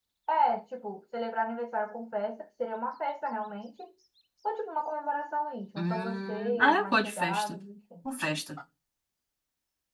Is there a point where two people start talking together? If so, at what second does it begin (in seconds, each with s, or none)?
5.8 s